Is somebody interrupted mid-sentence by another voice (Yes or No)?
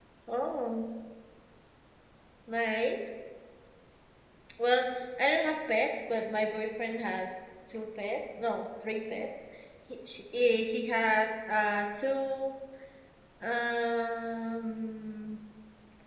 No